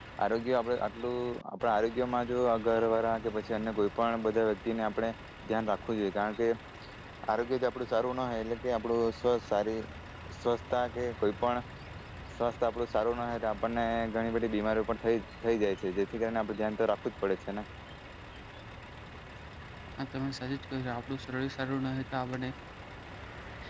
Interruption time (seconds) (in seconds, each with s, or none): none